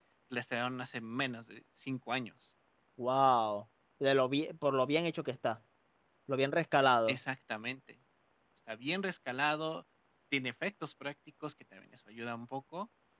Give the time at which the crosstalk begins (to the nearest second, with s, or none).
none